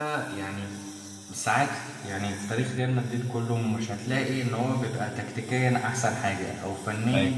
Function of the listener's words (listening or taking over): listening